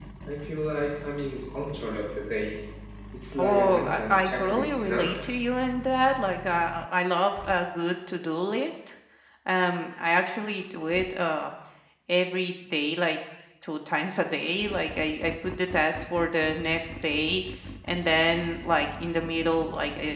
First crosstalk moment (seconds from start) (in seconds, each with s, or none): 3.4 s